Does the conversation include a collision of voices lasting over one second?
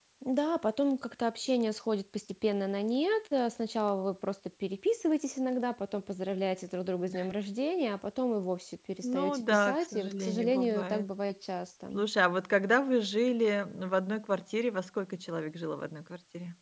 Yes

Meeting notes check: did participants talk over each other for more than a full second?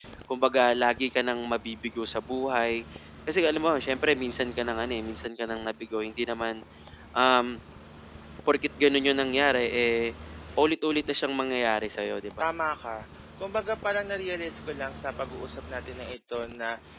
No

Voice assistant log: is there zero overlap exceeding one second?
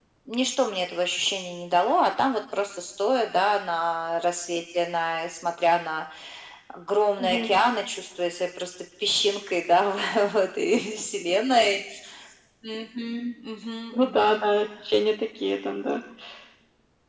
Yes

